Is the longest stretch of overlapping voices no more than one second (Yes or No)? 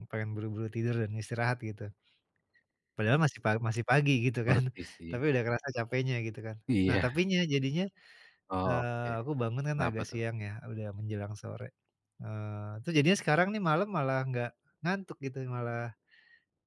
Yes